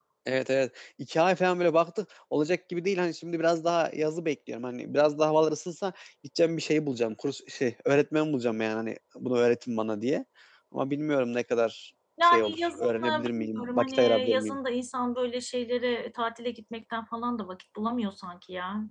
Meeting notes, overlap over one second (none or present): present